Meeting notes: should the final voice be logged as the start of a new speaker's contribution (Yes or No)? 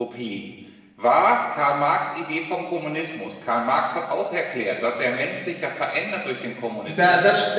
Yes